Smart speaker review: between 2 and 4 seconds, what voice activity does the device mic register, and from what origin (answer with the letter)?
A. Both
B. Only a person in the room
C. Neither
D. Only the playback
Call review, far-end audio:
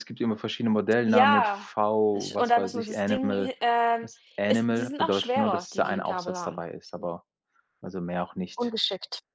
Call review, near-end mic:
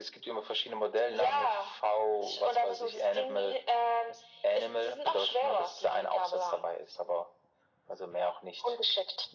D